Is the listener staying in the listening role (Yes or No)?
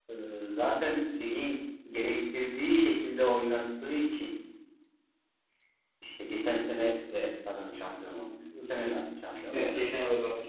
No